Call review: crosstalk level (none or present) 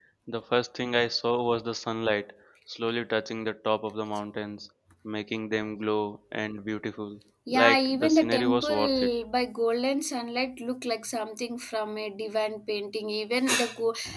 present